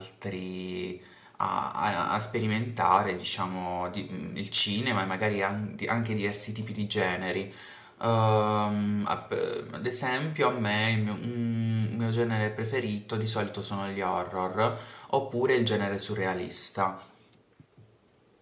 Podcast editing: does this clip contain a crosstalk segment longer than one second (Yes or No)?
No